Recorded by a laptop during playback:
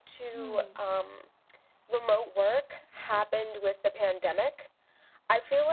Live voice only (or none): Hmm.